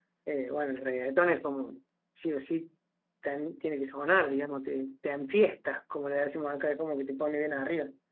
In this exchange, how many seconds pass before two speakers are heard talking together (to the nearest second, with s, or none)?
none